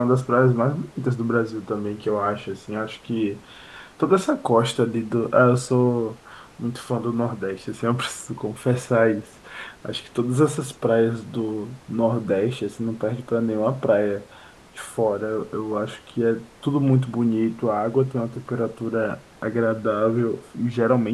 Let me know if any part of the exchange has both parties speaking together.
No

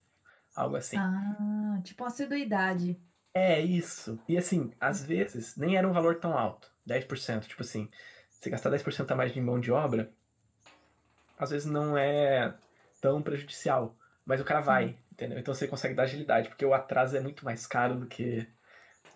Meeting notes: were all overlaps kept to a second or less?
Yes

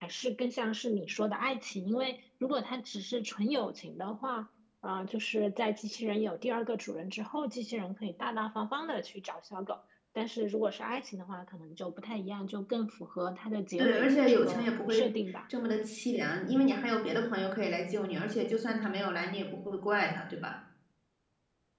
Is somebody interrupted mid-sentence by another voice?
Yes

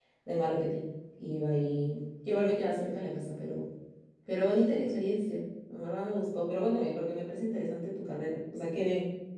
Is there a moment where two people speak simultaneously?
No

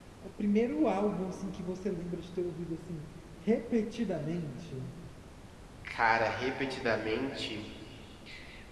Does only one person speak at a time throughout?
Yes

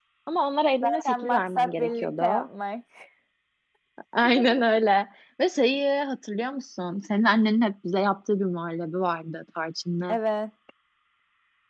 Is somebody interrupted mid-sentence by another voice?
Yes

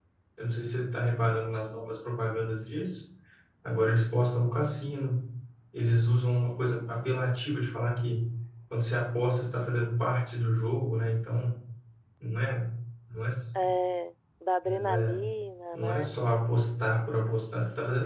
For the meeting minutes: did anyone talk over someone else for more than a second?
No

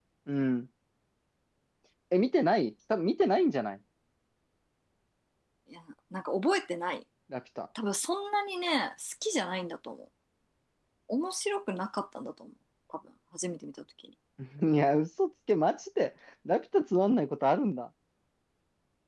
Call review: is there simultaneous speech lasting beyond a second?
No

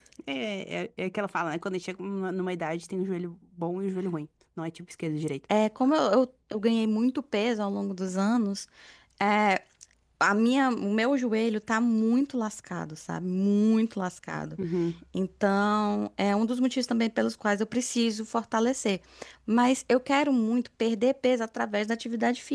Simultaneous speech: No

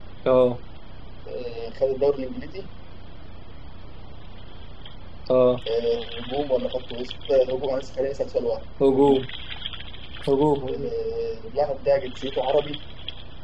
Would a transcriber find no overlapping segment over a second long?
Yes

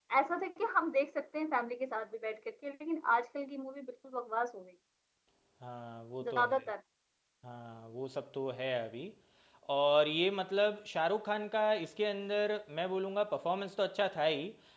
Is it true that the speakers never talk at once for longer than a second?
Yes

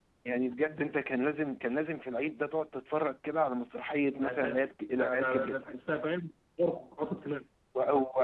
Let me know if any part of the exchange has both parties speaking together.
Yes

